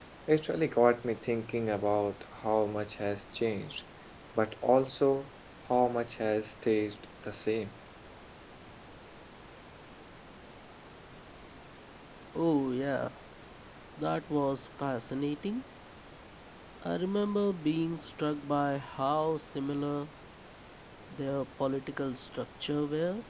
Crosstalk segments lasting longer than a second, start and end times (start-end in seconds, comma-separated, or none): none